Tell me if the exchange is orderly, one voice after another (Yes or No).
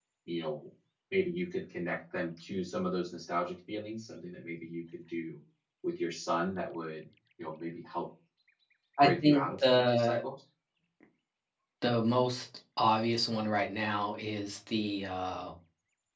No